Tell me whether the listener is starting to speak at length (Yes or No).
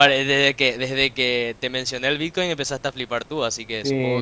Yes